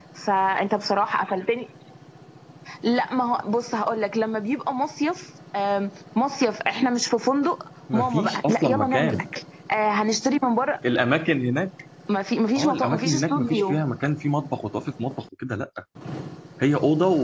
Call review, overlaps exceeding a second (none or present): present